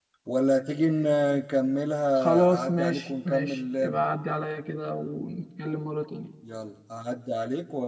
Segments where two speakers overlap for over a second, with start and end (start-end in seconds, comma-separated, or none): 2.2-4.0